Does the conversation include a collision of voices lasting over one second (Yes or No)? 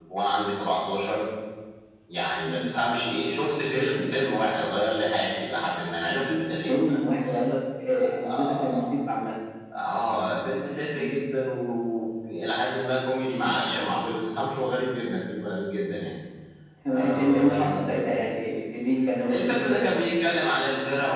Yes